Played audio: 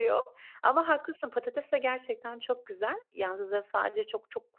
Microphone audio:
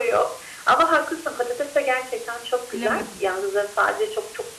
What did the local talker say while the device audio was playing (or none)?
Bilemedim.